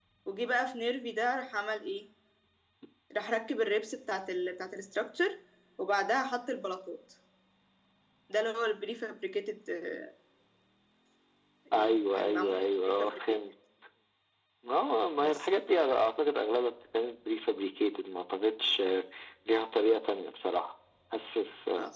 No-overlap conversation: No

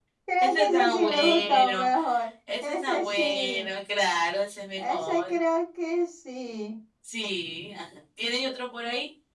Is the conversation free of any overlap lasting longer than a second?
No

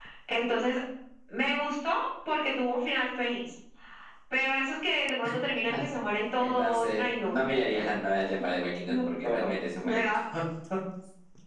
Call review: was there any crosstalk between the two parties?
Yes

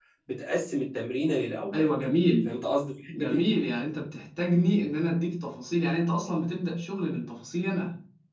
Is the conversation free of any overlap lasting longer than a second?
Yes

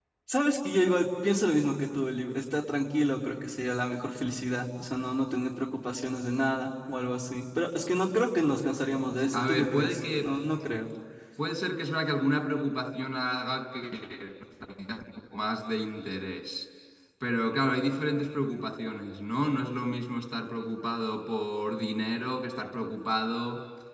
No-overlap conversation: No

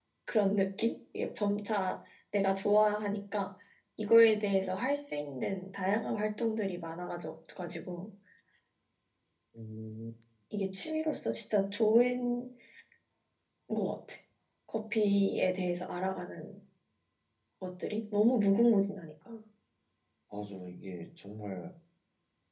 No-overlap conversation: Yes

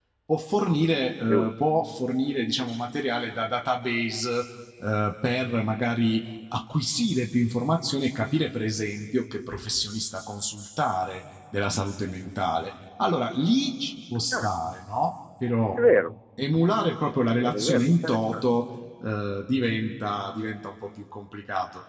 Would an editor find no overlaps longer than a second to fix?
No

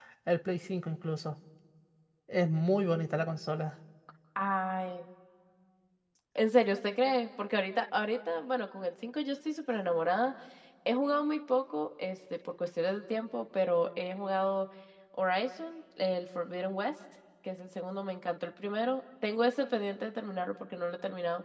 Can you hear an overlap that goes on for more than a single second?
No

